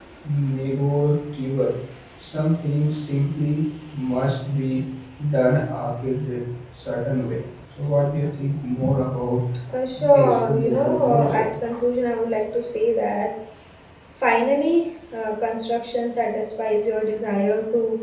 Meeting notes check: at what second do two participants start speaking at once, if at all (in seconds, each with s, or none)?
10.1 s